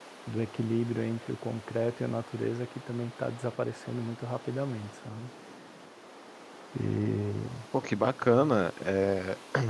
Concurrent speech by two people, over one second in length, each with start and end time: none

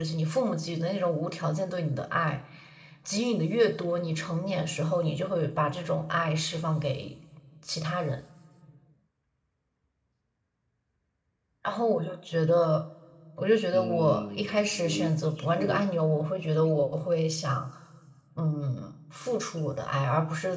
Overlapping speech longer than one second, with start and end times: 13.7-15.8

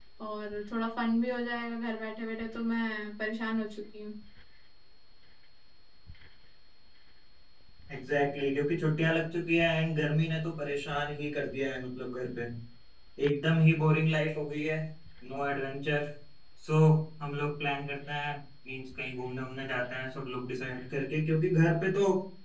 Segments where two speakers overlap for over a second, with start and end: none

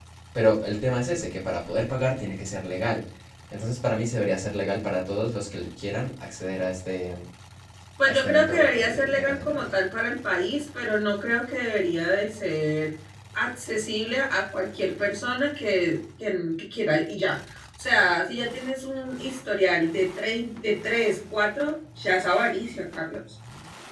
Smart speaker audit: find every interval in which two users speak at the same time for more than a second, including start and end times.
8.1-9.7

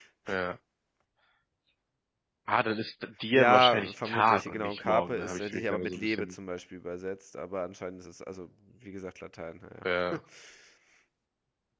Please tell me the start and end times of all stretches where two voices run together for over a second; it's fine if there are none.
3.3-6.3

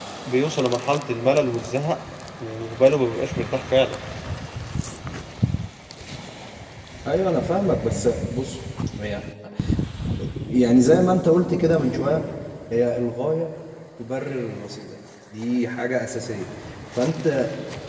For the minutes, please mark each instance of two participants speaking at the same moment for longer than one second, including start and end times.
none

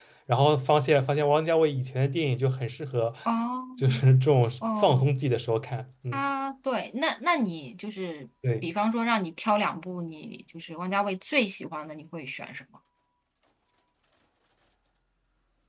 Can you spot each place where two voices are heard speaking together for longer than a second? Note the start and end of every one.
none

